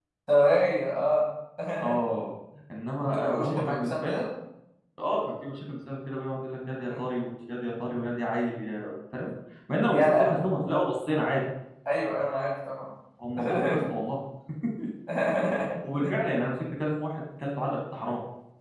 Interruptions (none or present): present